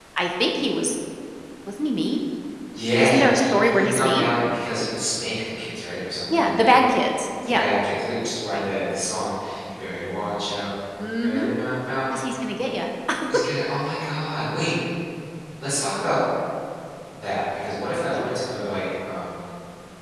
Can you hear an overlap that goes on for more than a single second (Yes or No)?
Yes